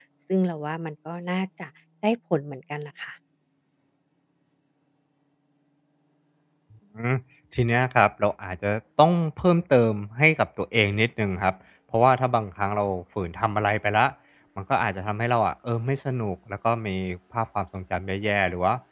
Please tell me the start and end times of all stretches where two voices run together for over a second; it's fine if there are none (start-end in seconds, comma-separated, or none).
none